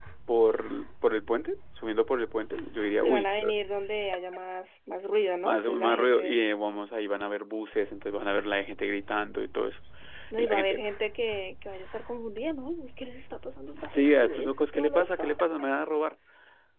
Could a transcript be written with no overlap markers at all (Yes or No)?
No